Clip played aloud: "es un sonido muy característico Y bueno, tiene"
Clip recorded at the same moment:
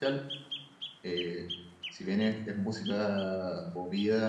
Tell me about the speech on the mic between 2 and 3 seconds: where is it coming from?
user only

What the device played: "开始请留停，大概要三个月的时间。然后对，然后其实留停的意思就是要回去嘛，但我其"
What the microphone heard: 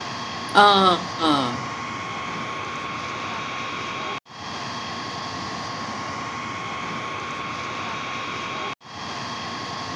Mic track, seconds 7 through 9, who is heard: neither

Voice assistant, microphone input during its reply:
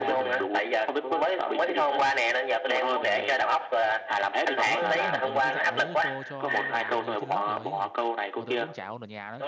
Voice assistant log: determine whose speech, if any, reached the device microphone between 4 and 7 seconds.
both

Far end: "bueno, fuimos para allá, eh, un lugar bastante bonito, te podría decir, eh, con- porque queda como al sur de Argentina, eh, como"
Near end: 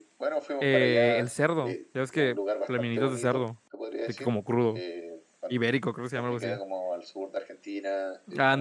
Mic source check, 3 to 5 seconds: both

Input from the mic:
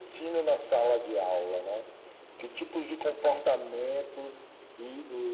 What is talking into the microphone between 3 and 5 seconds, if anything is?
echo only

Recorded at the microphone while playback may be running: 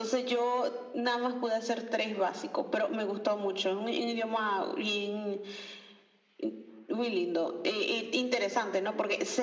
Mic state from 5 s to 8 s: echo only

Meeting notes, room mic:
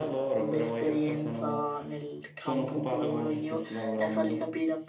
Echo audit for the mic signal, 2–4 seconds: both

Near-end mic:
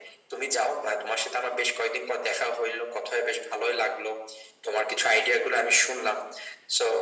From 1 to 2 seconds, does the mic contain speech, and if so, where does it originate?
echo only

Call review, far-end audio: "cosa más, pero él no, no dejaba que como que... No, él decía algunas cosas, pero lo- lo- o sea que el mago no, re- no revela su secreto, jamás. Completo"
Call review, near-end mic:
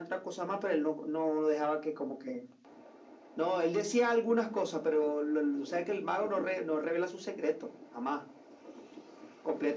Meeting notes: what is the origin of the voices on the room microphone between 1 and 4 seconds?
echo only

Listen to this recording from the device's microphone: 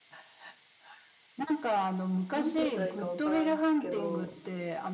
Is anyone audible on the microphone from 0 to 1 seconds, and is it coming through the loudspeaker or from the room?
neither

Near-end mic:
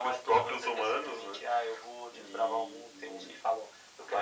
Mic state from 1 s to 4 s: echo only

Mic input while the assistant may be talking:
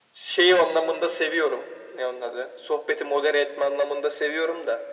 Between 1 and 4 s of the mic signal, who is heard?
echo only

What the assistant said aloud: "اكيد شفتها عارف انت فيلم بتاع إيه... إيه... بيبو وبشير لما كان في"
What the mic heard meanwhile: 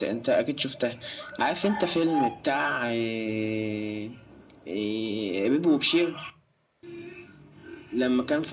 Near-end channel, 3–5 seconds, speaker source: echo only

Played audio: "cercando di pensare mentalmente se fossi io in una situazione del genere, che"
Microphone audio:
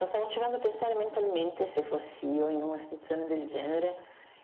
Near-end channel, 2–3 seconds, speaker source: echo only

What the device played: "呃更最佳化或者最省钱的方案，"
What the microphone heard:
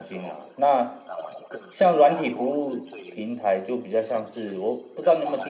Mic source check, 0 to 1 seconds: both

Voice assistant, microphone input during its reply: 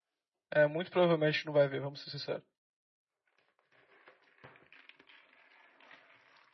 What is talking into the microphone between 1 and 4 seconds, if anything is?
user only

